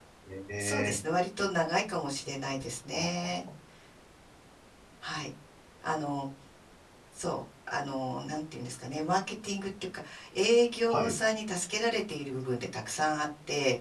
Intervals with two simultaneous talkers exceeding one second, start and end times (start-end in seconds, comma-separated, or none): none